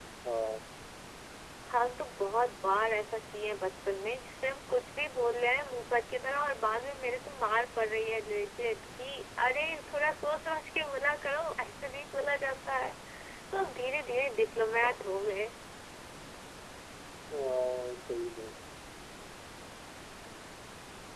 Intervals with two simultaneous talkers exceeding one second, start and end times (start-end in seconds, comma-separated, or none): none